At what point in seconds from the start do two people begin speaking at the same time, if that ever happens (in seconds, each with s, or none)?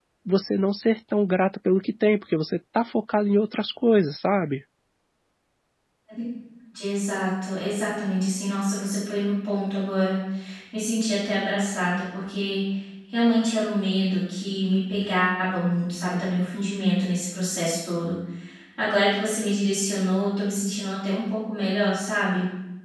none